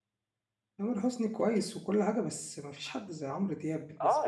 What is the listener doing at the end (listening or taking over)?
taking over